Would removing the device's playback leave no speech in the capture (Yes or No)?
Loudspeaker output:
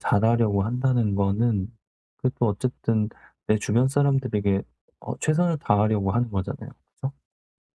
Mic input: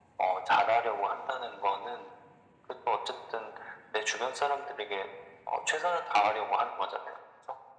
Yes